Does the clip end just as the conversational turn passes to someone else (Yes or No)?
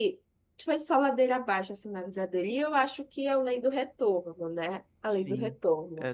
Yes